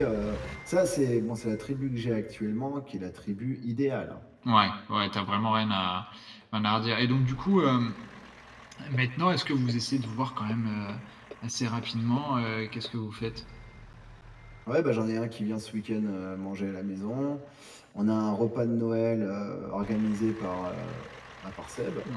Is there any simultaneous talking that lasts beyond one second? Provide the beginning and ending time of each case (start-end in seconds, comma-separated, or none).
none